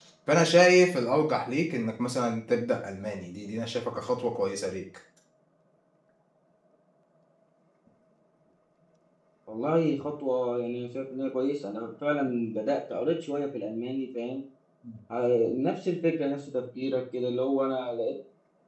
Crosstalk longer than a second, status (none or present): none